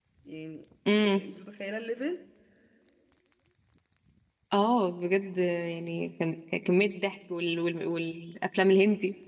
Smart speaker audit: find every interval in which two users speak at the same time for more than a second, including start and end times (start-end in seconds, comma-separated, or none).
none